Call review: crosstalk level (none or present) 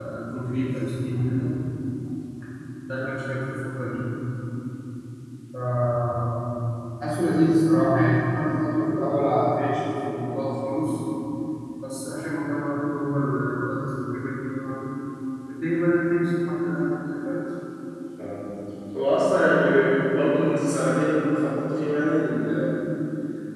none